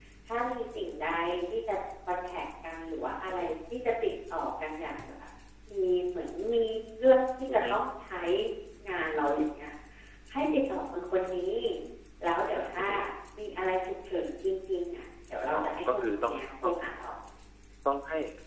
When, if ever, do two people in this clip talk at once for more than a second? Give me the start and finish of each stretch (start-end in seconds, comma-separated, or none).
15.5-16.8